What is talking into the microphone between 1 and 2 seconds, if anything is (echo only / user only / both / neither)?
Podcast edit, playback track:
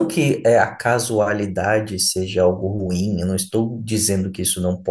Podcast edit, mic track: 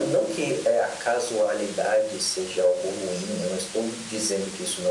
echo only